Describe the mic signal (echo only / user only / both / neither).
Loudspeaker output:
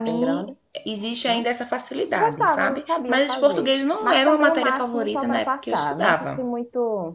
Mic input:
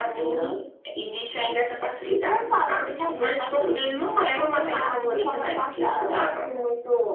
both